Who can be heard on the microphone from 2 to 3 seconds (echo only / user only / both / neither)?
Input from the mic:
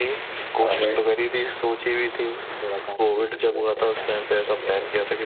echo only